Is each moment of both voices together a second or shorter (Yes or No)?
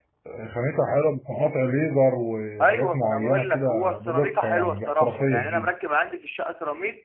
No